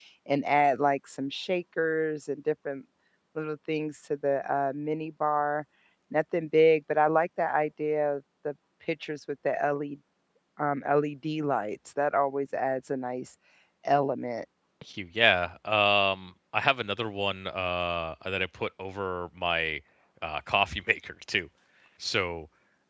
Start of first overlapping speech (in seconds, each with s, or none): none